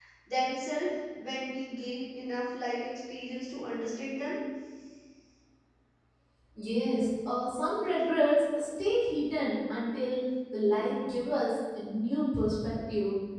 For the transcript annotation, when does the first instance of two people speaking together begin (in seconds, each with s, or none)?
none